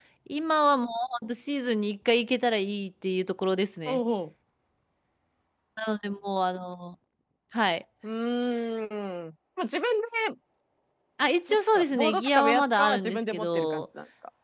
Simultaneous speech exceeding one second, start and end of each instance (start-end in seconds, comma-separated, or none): 11.7-13.8